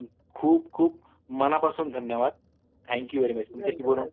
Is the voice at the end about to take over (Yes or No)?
No